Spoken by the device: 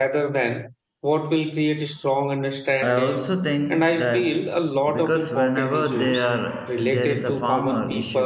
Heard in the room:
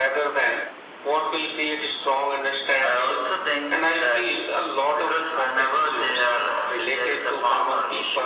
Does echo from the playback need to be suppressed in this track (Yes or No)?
Yes